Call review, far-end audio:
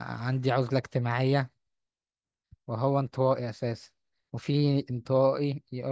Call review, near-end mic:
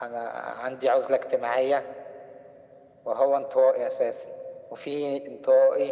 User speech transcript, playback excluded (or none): none